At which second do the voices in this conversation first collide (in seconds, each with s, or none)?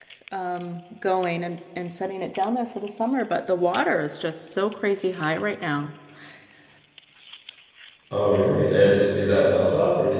none